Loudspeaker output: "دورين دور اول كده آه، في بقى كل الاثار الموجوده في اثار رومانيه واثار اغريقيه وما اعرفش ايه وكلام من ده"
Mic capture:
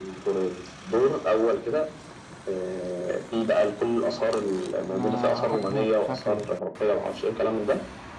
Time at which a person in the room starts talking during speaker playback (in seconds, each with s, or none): 4.9 s